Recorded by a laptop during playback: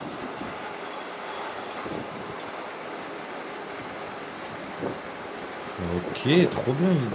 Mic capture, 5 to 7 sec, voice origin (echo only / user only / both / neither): user only